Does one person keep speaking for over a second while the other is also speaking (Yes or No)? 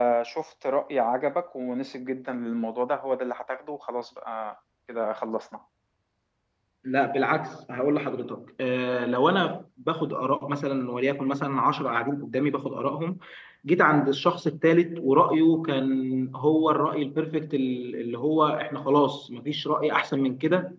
No